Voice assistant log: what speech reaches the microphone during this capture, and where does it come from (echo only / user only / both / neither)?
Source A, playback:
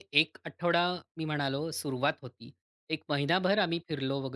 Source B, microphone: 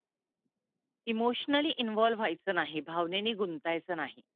user only